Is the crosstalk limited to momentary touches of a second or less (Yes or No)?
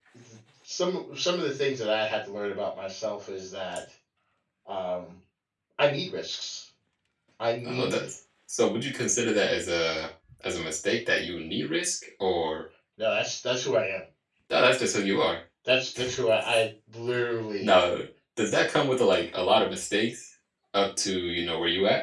Yes